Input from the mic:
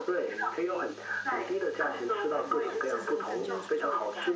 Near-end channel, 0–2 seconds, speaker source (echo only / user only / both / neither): echo only